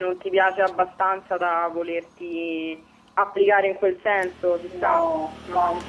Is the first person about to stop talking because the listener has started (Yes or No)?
Yes